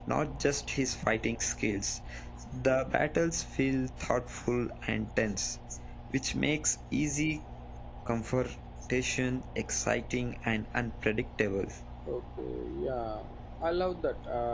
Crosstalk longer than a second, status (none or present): none